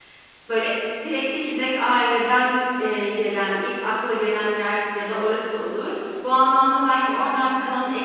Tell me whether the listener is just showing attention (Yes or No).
Yes